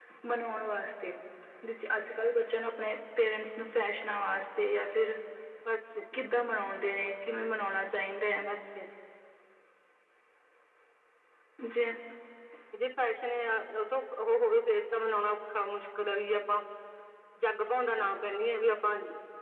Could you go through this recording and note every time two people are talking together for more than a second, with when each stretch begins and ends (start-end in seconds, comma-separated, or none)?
none